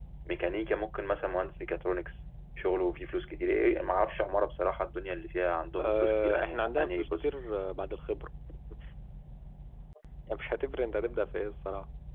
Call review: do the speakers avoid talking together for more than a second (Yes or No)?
No